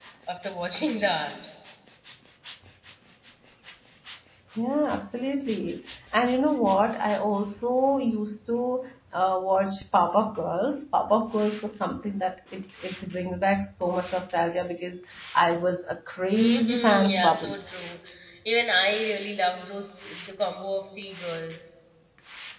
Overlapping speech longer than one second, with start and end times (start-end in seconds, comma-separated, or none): 16.3-17.6